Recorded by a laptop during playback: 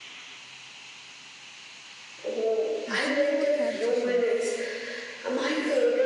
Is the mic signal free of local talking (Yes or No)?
No